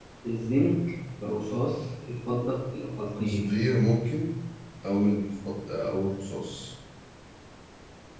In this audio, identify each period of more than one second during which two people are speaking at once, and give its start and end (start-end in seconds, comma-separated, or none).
none